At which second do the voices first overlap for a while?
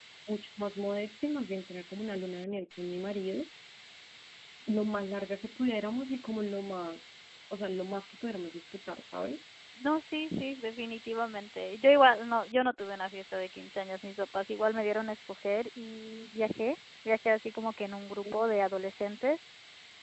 none

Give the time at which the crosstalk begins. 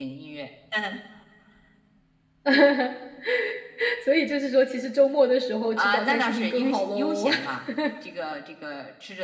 5.8 s

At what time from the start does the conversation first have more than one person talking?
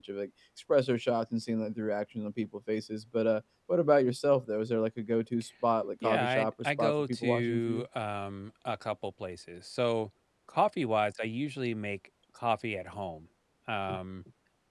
6.0 s

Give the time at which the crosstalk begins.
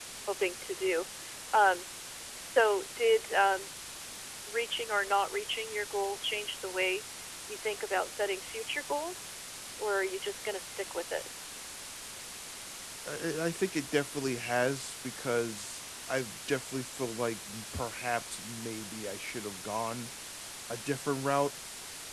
none

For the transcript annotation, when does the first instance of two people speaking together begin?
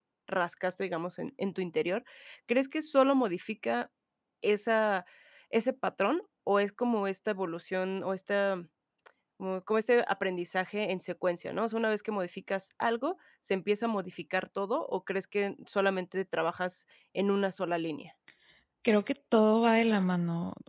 none

